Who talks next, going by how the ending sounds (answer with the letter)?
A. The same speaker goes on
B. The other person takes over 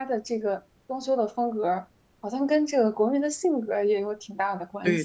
B